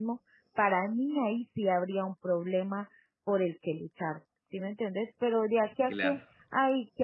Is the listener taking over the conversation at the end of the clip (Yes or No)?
No